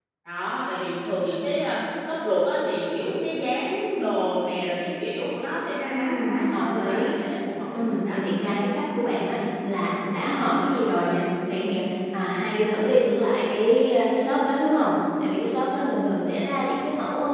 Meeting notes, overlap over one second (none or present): present